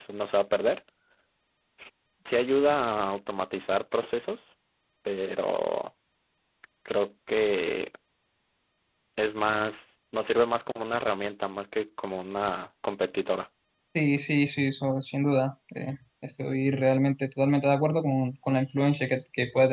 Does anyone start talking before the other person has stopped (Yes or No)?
No